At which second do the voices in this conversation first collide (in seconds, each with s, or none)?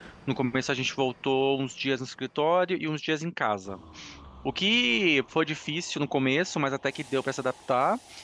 none